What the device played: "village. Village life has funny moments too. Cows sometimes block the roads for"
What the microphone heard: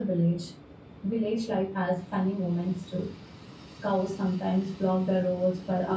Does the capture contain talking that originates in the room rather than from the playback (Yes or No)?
No